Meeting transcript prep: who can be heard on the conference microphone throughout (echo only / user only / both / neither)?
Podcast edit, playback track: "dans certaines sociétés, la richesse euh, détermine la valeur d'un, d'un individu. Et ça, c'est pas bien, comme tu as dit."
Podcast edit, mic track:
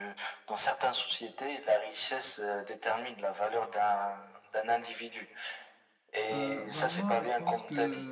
both